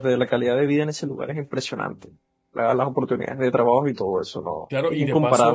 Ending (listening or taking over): taking over